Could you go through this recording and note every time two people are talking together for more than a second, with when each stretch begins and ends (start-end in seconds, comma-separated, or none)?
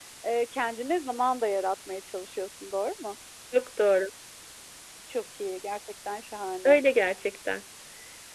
none